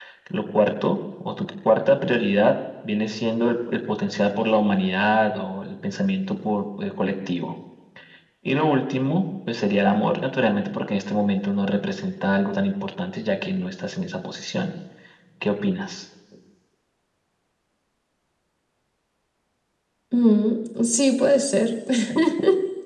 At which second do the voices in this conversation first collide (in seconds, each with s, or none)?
none